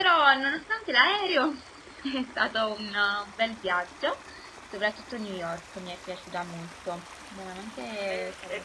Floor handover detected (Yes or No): Yes